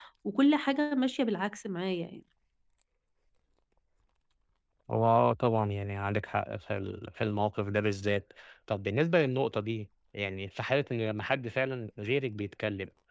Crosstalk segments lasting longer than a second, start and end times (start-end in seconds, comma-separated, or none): none